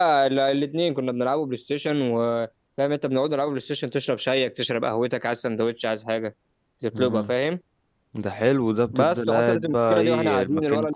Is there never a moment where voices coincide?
No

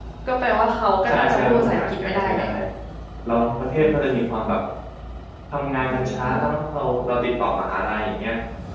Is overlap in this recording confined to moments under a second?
No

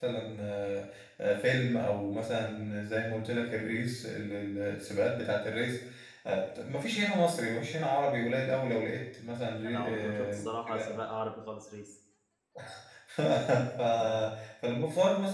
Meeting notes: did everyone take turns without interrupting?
No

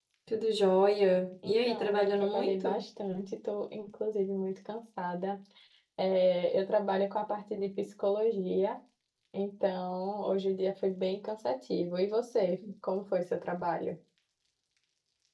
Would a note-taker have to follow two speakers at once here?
Yes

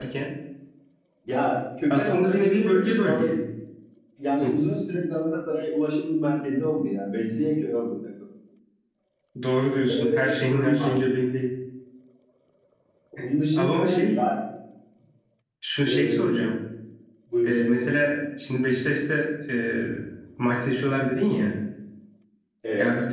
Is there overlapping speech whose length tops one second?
Yes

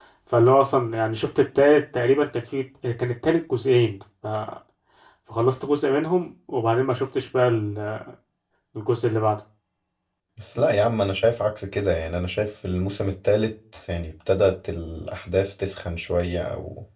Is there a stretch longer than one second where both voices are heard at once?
No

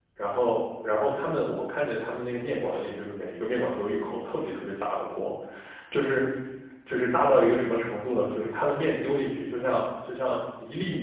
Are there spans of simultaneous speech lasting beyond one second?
No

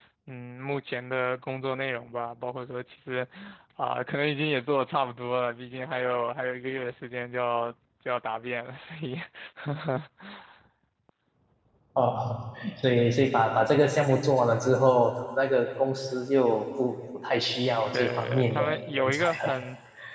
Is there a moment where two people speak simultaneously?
Yes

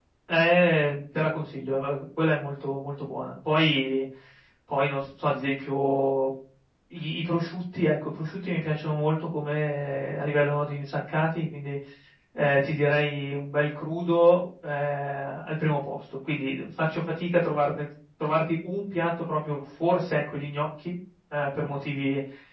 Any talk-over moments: No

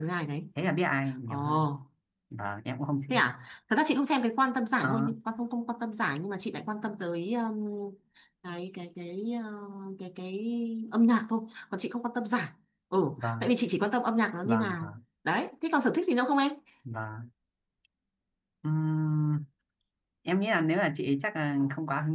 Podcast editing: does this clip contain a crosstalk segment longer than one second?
No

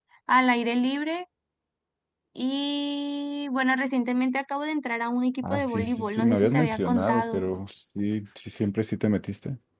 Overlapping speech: Yes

